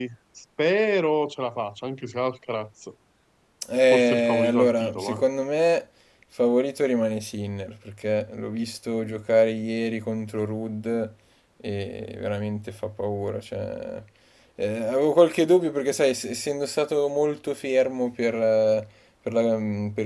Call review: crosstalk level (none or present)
present